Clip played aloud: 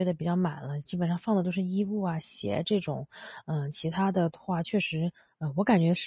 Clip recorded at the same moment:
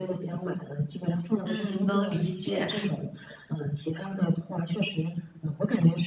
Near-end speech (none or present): present